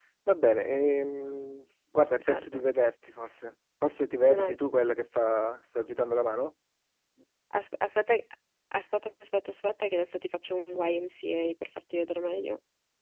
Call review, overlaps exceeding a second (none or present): none